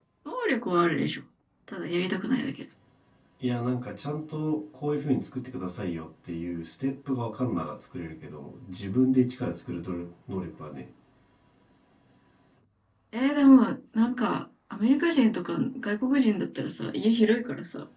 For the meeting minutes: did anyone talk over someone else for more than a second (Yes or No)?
No